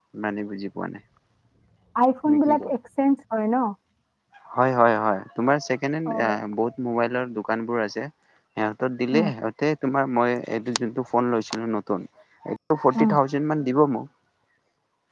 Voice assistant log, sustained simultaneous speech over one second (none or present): none